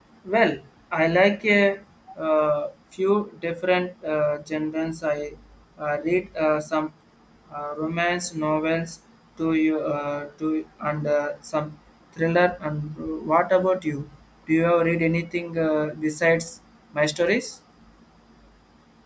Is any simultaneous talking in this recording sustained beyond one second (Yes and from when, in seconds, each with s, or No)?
No